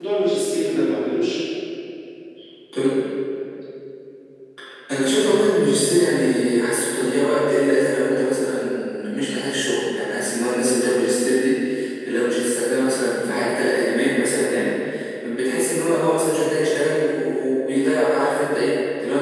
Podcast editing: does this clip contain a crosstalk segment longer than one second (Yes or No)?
No